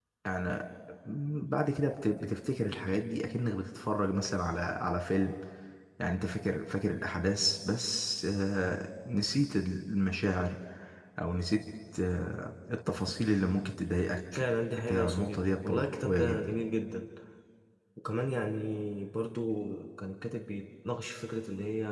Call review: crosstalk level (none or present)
present